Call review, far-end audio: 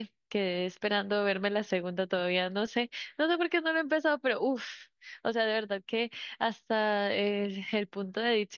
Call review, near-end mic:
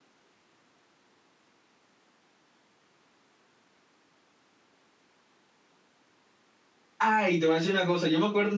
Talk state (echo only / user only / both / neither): user only